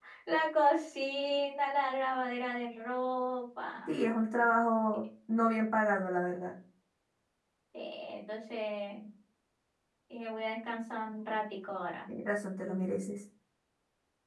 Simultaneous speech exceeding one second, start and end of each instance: none

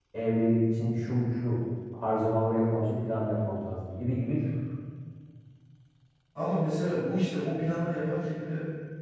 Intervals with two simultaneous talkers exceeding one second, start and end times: none

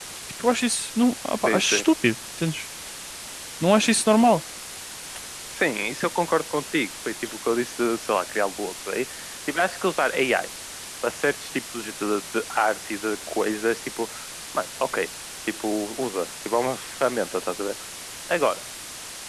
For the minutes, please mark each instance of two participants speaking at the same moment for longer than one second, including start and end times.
none

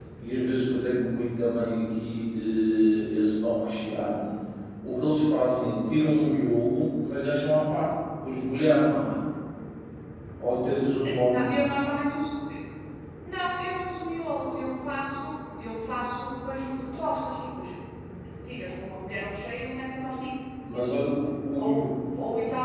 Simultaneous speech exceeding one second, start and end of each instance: none

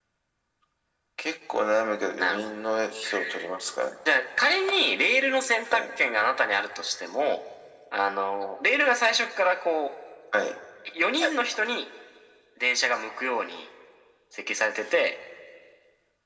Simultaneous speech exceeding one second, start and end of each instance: none

